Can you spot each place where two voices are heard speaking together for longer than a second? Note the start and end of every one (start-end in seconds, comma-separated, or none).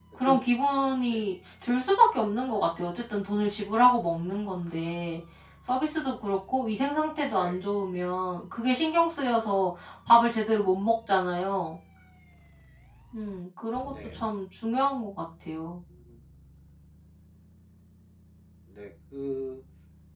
none